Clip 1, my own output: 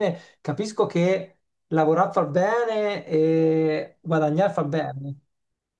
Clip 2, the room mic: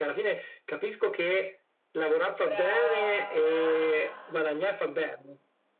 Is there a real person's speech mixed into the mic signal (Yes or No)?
Yes